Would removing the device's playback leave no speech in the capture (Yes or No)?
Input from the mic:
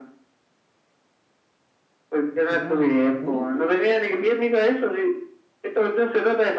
No